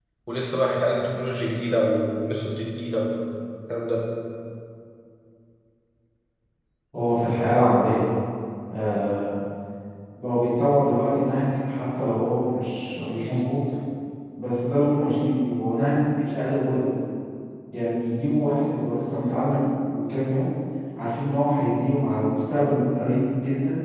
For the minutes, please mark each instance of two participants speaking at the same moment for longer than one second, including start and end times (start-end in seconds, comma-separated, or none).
none